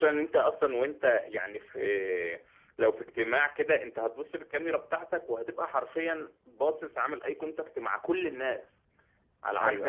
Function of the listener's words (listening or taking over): listening